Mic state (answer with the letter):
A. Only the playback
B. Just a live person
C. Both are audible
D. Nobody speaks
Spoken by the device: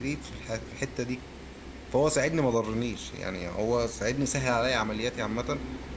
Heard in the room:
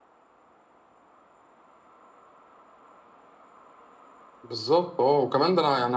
B